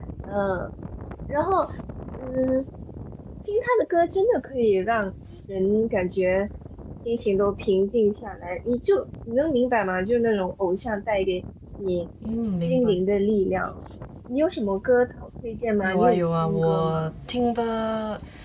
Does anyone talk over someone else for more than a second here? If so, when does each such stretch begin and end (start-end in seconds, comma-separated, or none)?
15.8-17.1